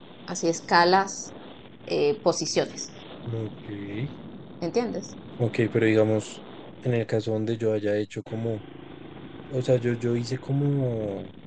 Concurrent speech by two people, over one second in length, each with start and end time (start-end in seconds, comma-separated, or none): none